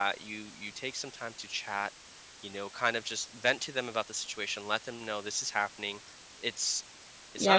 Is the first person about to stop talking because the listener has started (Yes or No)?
Yes